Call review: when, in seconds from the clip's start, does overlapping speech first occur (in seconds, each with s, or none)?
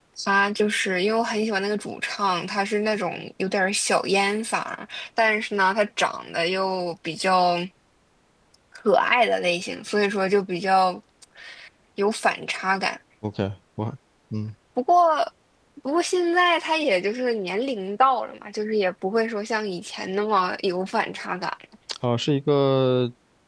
none